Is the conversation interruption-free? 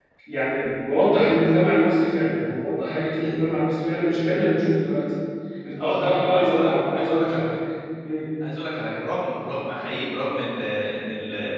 No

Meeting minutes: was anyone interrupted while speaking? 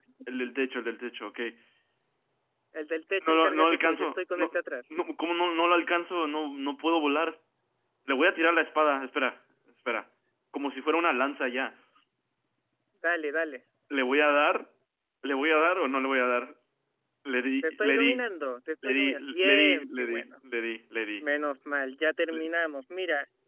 Yes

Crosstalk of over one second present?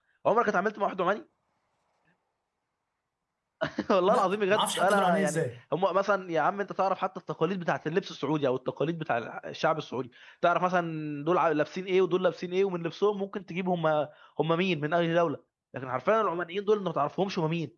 Yes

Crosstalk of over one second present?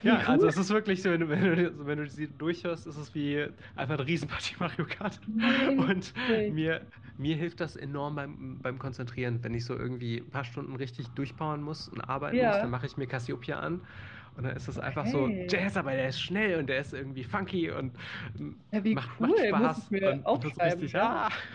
Yes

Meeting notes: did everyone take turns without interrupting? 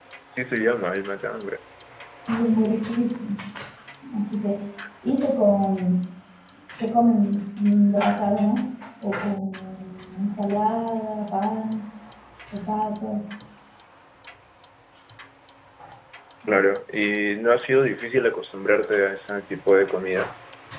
Yes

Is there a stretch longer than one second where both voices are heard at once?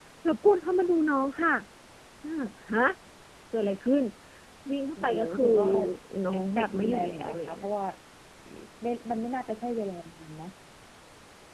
Yes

